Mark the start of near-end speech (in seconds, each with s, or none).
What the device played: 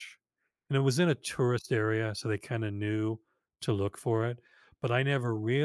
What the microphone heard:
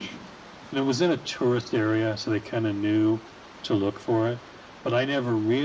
none